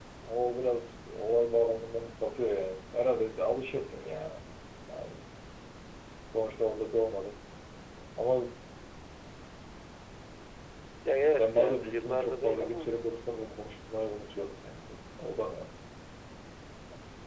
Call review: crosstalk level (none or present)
present